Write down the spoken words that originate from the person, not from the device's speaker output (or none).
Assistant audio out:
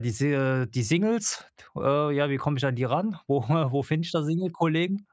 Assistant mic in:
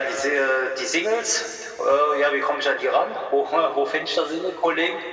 none